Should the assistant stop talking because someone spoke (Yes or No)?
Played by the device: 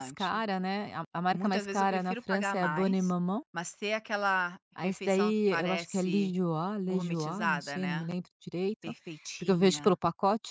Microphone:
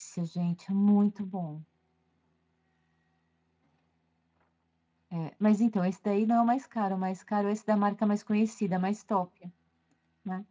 Yes